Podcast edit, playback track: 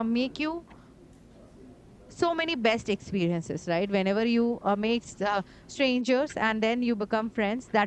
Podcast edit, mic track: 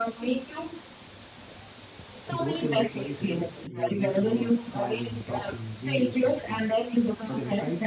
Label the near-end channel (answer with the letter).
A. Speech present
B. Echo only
A